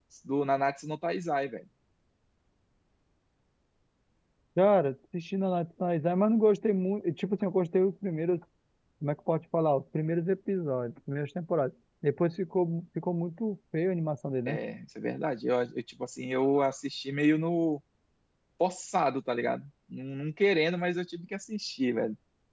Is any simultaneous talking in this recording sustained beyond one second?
No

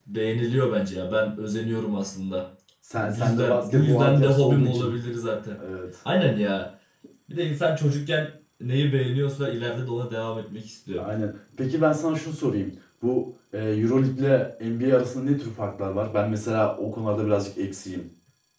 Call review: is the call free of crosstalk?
No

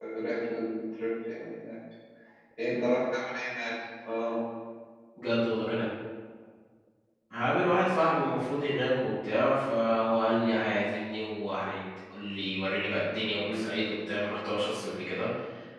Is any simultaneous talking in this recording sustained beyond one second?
No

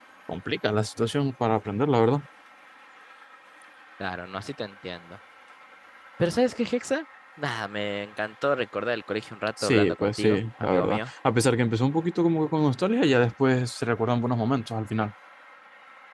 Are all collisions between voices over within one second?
No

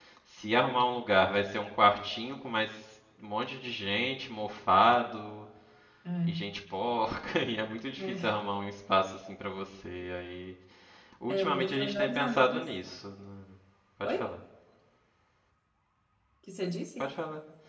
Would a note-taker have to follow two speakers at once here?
Yes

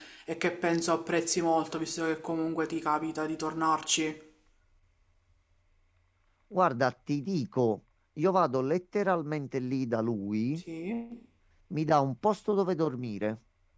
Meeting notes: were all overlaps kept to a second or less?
Yes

